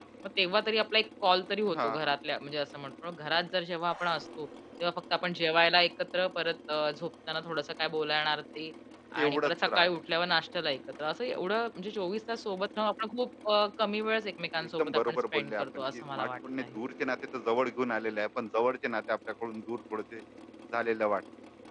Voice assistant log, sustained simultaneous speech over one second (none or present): present